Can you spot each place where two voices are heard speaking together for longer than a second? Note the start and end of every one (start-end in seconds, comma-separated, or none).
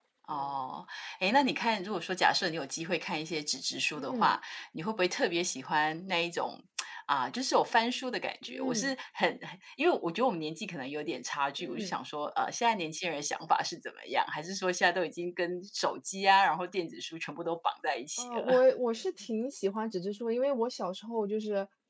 none